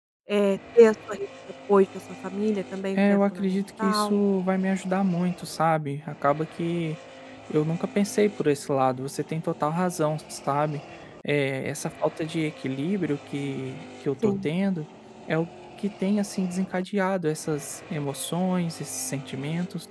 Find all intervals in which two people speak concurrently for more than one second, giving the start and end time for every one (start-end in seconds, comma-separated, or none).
3.0-4.2